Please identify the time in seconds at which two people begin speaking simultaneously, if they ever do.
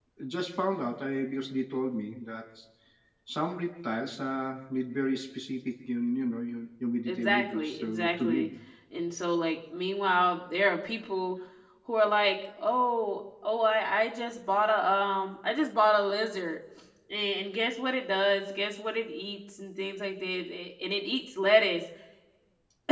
7.1 s

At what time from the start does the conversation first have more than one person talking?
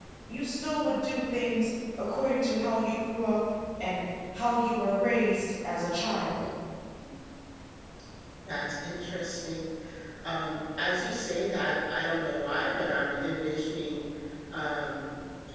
none

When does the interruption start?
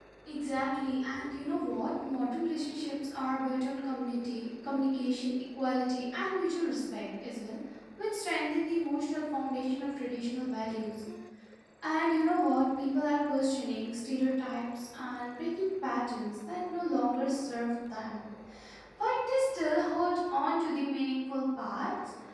none

